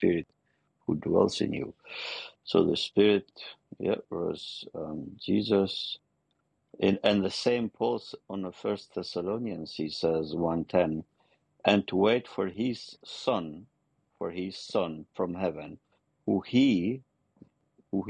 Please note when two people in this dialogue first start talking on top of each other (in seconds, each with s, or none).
none